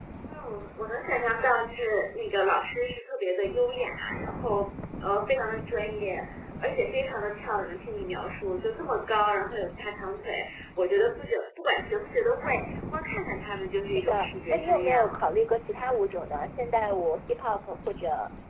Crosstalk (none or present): present